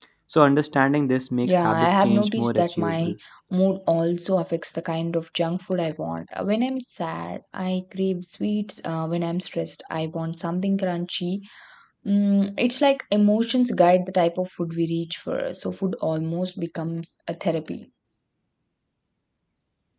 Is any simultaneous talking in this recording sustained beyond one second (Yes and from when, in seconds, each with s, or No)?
Yes, from 1.4 s